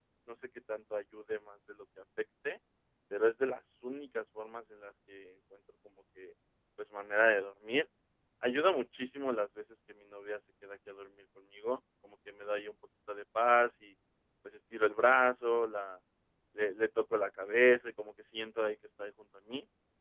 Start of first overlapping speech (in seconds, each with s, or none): none